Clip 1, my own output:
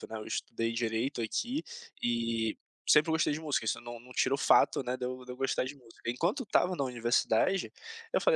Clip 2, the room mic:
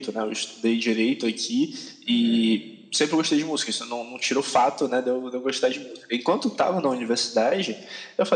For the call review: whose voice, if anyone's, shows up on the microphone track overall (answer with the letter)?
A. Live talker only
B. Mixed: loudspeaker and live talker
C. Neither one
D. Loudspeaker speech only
B